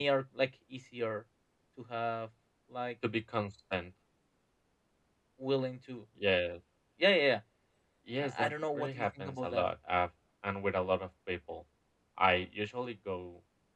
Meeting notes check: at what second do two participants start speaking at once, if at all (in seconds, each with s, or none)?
8.2 s